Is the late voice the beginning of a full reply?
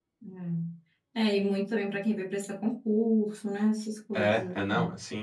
Yes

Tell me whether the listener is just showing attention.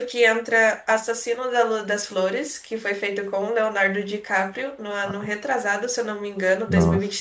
No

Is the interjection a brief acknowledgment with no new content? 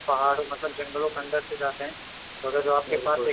Yes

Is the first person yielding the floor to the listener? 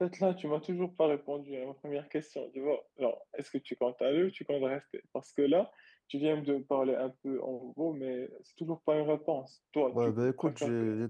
Yes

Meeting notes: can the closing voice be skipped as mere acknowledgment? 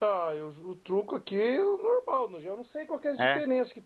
Yes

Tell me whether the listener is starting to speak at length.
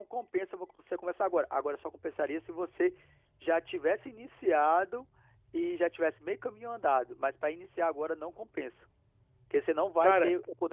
No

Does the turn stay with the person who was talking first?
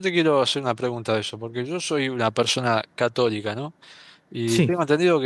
Yes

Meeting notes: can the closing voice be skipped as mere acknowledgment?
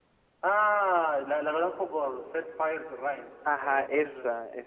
No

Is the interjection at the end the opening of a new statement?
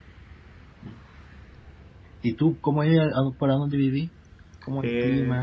Yes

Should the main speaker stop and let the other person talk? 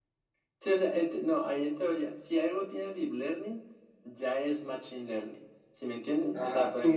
Yes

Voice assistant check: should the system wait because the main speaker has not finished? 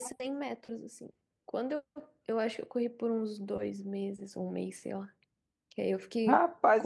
No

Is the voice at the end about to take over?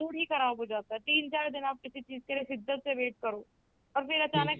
No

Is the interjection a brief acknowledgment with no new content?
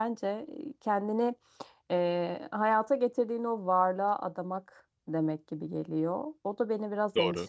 Yes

